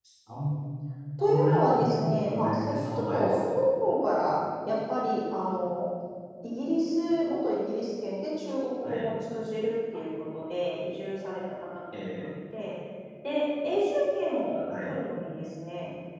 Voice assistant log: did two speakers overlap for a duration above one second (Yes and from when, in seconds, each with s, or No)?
Yes, from 1.2 s